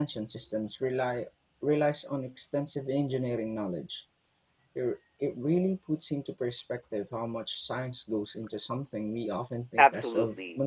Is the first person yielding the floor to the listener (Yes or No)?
Yes